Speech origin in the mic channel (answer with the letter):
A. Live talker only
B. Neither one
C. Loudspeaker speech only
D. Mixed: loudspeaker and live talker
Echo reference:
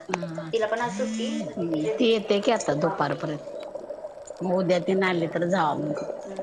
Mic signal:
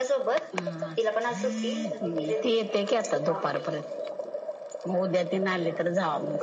C